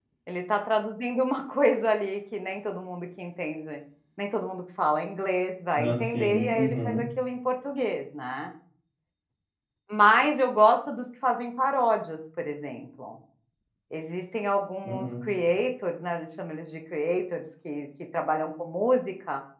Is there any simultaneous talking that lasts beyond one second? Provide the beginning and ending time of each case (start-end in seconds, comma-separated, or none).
5.7-7.0